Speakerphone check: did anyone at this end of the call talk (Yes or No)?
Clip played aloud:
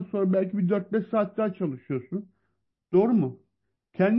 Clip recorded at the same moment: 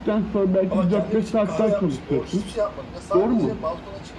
Yes